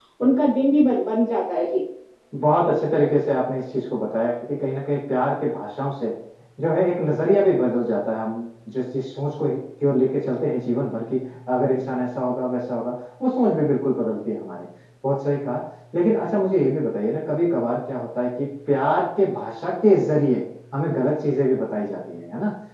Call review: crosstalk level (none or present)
none